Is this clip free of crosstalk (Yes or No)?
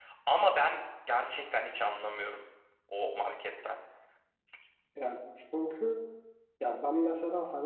Yes